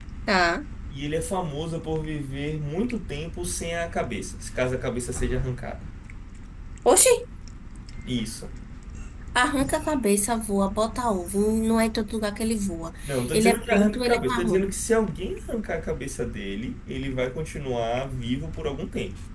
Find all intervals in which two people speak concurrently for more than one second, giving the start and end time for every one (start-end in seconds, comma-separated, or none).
13.3-14.7